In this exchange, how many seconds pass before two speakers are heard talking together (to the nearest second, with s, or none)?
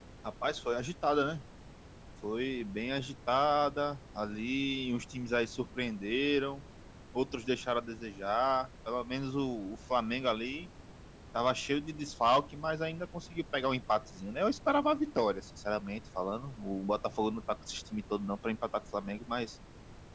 none